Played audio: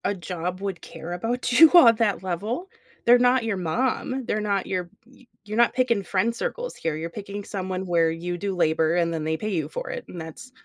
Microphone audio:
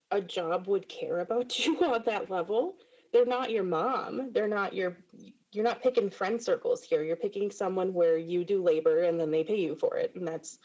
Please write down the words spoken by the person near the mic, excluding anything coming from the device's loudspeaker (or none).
none